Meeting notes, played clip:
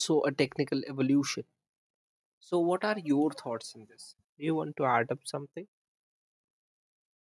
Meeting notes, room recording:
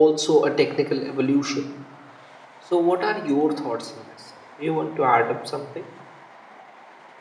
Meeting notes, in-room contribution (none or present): none